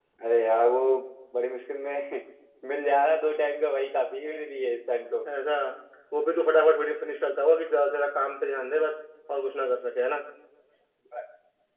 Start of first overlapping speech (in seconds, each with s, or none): none